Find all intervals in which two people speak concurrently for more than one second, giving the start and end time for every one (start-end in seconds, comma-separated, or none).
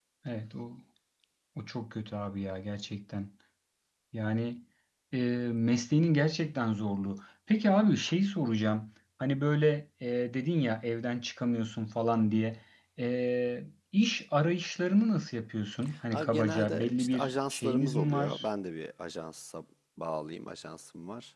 16.1-18.5